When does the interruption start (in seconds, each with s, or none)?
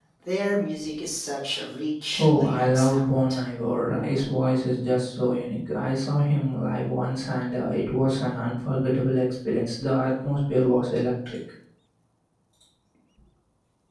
2.2 s